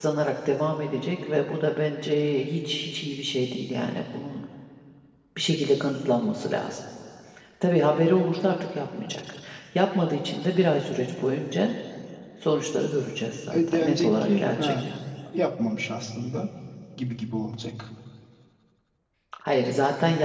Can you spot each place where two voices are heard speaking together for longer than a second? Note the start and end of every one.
13.5-14.7

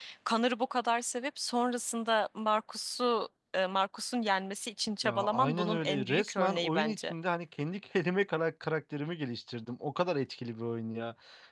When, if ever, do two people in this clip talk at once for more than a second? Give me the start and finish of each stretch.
5.0-7.1

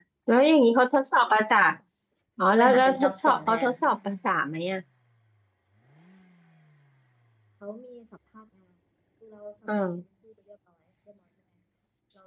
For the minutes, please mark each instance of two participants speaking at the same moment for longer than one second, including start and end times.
2.5-3.7

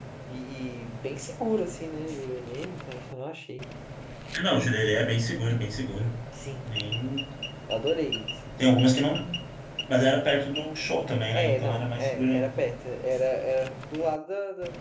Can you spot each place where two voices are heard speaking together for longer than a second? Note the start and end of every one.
11.3-12.5

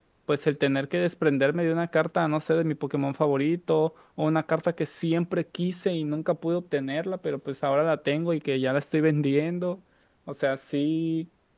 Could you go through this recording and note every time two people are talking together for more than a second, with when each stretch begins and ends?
none

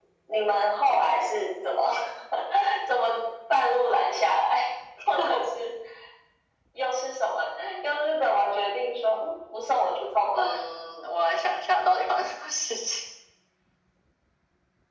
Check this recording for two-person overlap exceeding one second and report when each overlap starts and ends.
none

